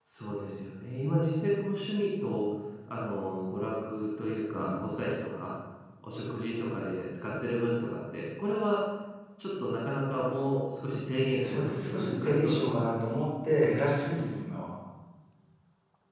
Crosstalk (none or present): present